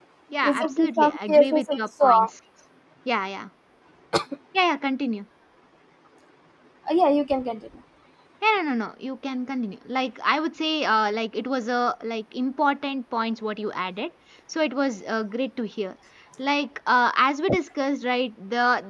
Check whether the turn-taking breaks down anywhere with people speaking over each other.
Yes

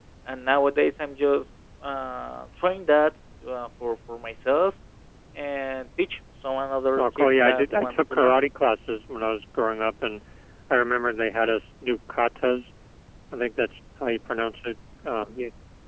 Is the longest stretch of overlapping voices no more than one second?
No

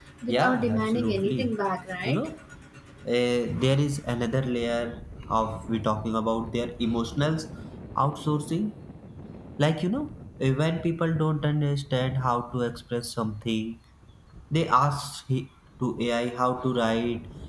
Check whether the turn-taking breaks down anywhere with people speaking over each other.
Yes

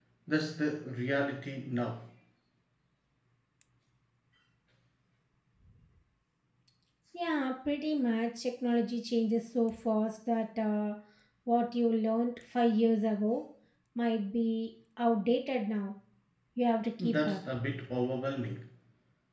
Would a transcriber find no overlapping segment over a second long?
Yes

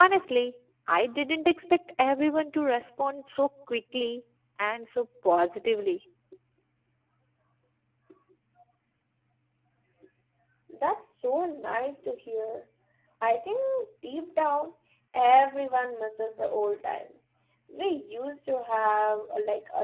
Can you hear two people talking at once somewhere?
No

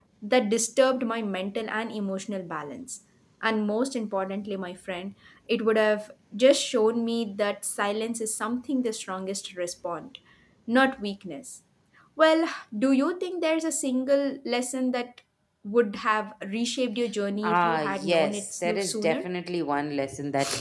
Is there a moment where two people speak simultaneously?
Yes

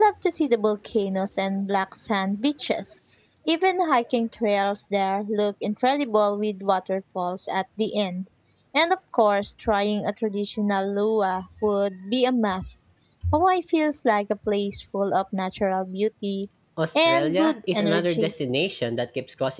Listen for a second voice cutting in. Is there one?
Yes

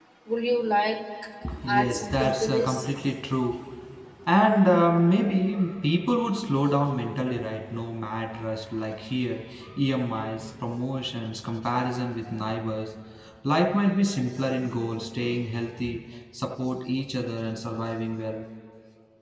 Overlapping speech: Yes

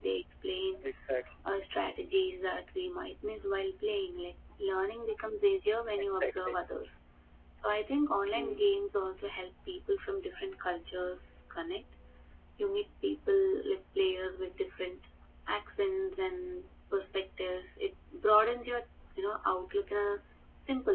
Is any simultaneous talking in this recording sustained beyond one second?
No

